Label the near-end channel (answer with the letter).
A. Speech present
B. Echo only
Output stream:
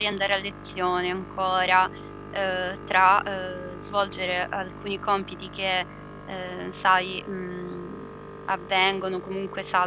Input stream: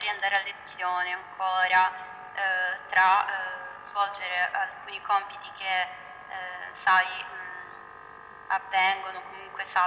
B